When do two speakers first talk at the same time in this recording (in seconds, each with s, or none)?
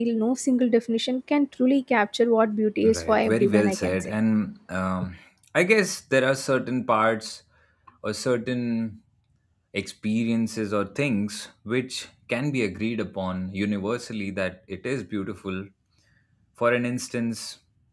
2.8 s